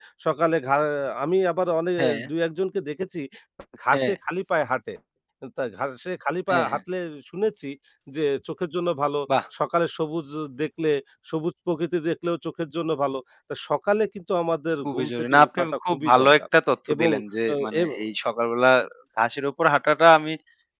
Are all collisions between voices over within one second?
No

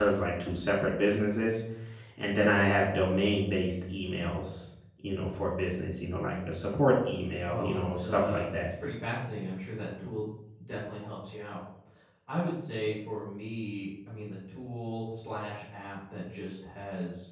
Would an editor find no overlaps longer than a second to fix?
No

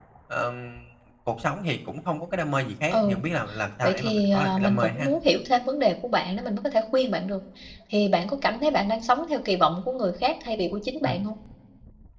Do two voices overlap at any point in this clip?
Yes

